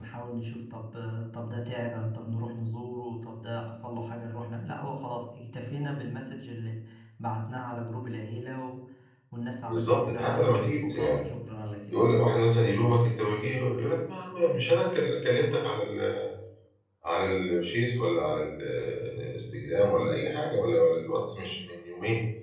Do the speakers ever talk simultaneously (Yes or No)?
Yes